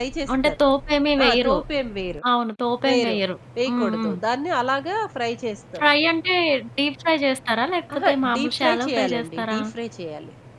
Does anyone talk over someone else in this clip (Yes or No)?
Yes